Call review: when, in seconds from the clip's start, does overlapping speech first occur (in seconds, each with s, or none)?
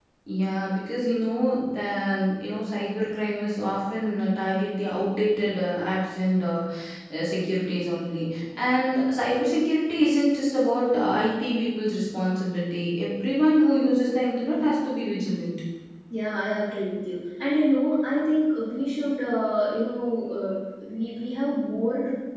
none